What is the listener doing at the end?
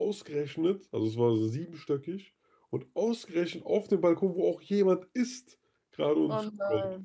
listening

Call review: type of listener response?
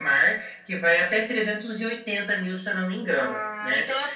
taking over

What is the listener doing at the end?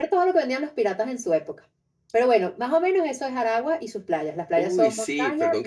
taking over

